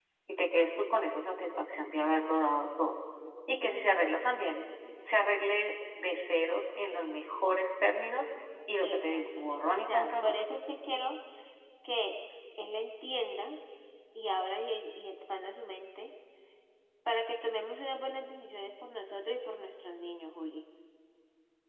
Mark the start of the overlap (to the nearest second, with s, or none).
9 s